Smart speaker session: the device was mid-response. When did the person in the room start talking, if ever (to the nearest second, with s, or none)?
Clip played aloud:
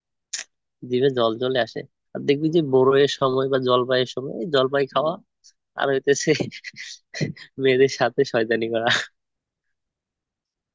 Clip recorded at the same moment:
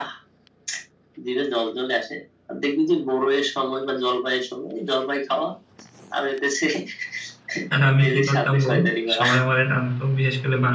8 s